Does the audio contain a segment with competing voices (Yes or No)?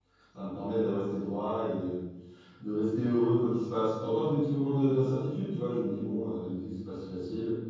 No